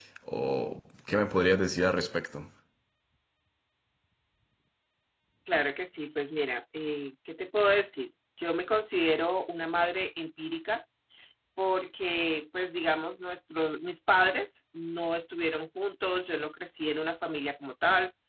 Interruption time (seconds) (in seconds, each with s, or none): none